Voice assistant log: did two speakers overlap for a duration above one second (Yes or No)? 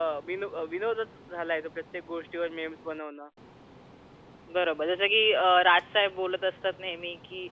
No